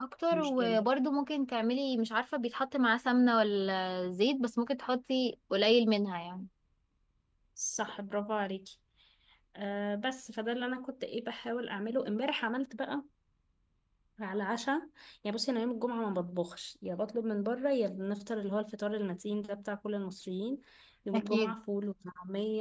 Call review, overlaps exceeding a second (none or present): none